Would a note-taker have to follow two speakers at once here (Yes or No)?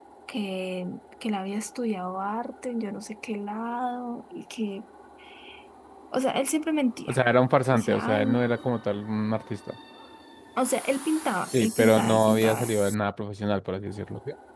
Yes